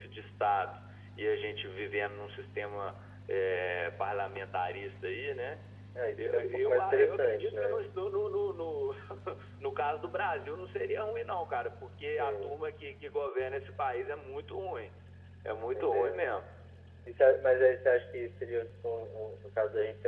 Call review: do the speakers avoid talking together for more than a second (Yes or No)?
No